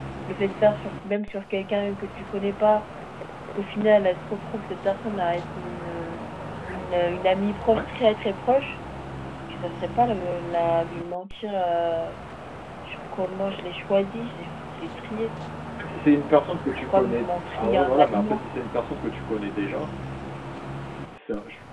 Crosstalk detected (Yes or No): Yes